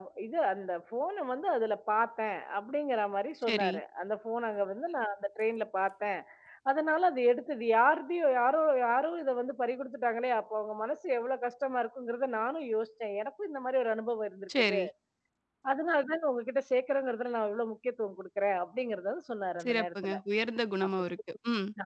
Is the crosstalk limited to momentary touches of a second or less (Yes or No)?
Yes